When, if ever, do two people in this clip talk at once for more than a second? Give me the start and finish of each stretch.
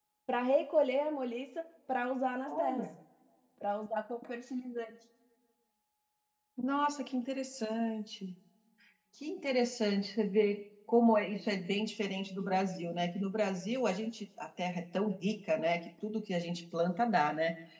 none

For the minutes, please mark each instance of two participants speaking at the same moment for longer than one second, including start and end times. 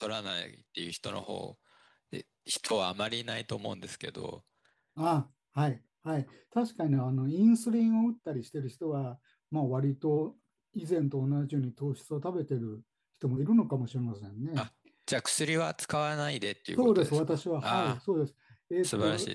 16.8-18.0

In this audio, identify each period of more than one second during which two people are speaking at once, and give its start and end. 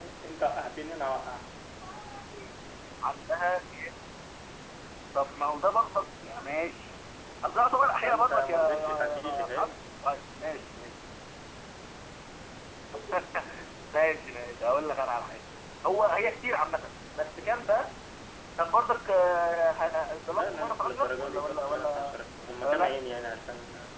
8.0-9.8, 20.3-22.2

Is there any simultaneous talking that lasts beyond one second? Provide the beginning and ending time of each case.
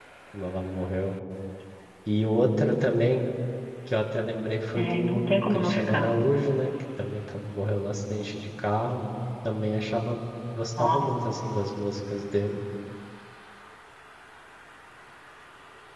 4.8-6.1

